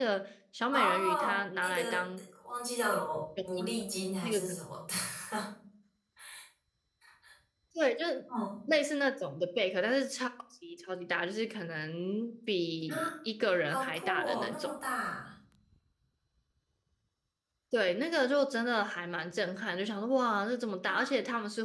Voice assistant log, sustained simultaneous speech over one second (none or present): present